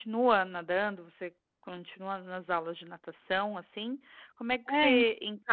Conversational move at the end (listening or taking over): listening